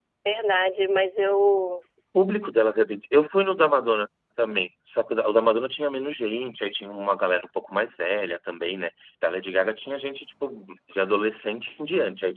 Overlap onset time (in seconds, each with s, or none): none